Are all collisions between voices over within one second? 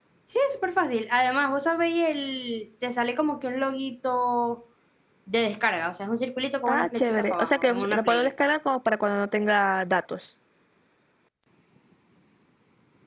No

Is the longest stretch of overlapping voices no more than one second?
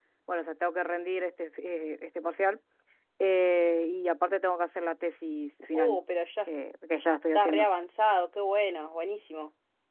Yes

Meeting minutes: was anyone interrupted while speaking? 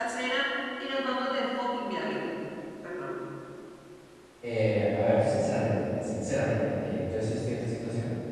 No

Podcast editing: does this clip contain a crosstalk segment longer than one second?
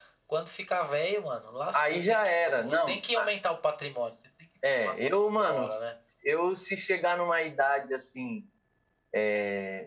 Yes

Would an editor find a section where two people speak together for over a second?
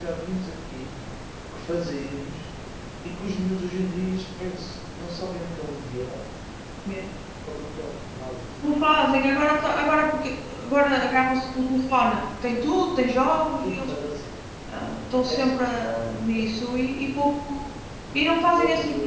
No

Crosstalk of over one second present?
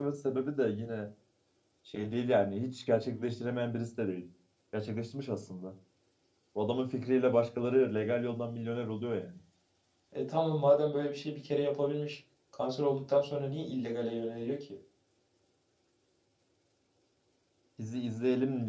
No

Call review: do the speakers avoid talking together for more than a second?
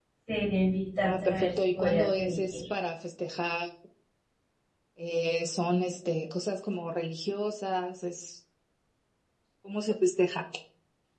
No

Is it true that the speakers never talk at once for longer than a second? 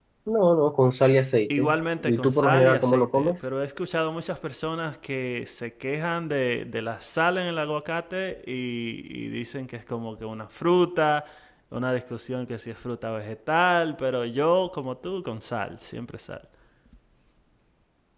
No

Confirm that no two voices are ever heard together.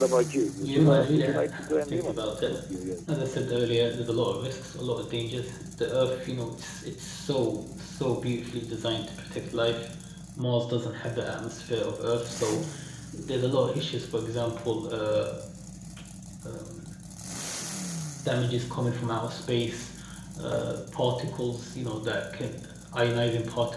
No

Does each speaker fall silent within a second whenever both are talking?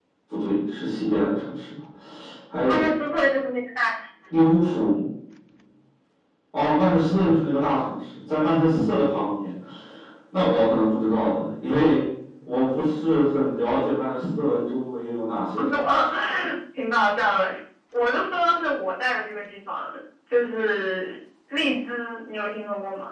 Yes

